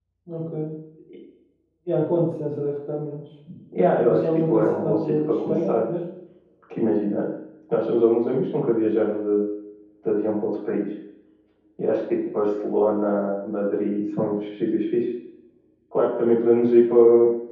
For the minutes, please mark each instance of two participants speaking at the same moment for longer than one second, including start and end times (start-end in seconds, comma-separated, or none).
4.1-5.8